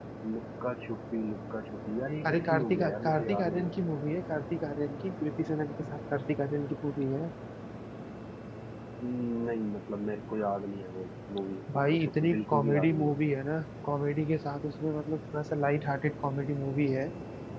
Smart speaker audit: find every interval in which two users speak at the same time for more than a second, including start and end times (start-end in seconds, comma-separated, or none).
2.3-3.7, 11.7-13.1